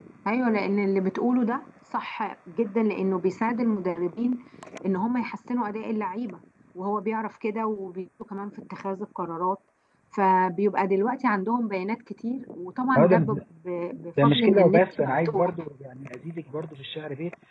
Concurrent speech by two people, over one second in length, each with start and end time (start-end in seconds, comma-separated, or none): 14.2-15.5